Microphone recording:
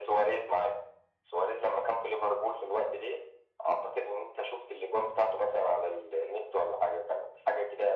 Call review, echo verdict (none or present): present